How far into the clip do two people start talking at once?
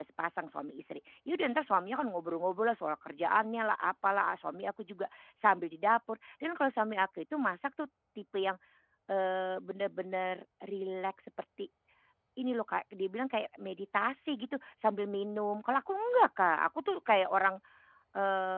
none

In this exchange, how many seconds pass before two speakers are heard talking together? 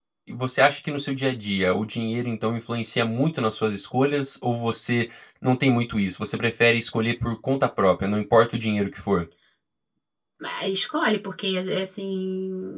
none

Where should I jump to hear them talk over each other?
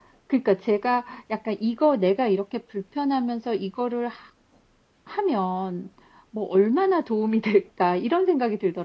none

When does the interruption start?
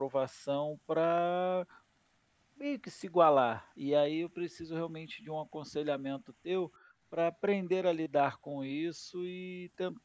none

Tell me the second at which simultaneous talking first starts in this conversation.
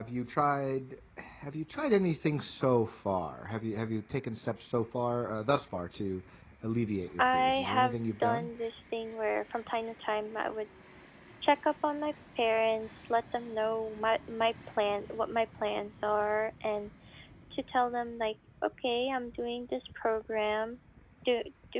7.2 s

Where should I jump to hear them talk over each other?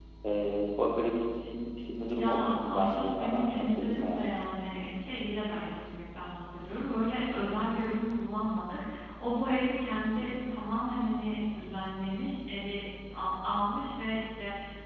1.9 s

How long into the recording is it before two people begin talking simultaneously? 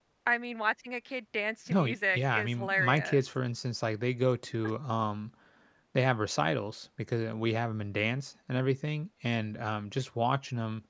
1.7 s

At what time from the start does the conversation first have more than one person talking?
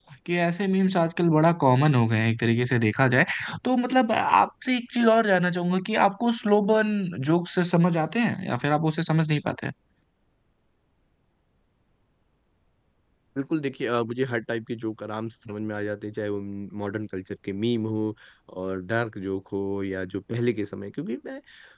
none

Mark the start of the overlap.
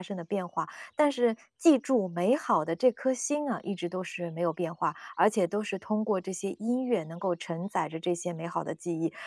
none

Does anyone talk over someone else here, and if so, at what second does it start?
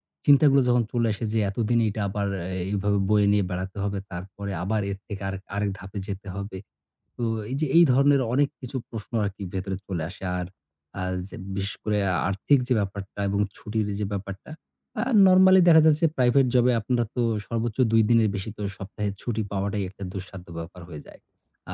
none

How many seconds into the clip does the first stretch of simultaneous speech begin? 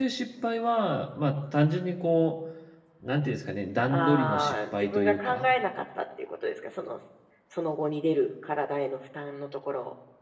3.9 s

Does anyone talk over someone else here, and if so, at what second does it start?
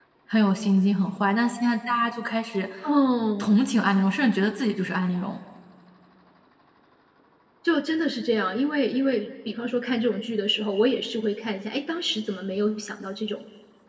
none

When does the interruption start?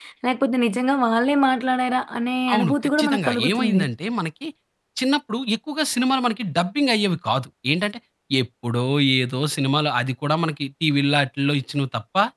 2.5 s

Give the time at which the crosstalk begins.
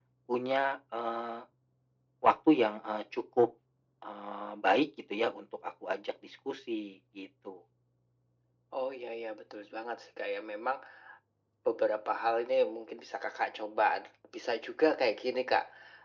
none

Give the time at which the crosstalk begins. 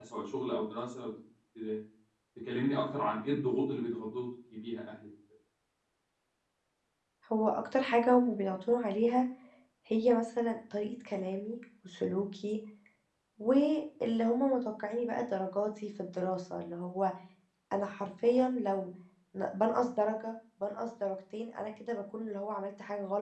none

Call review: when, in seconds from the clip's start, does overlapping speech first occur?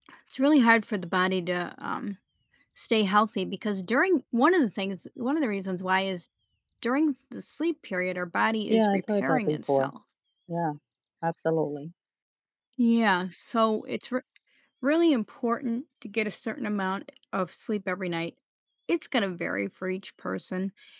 8.7 s

